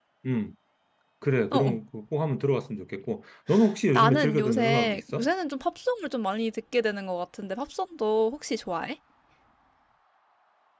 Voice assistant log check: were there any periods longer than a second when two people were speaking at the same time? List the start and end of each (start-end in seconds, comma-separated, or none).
3.9-5.3